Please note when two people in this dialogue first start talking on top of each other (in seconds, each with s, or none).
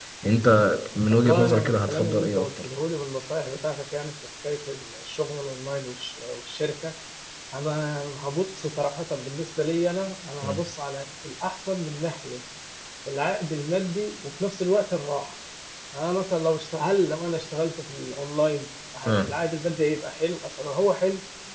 1.1 s